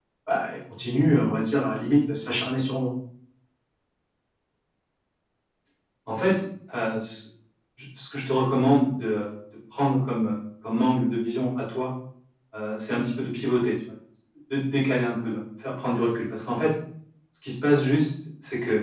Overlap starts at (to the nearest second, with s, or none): none